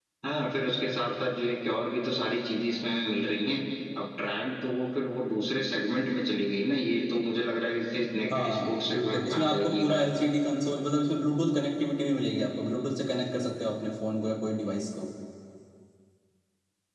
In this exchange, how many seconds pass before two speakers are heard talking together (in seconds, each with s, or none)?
8.3 s